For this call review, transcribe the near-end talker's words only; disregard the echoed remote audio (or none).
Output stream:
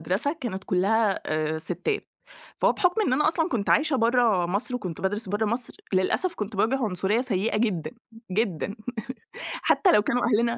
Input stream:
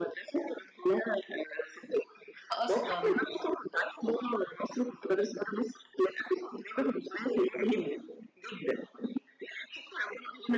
أصلًا.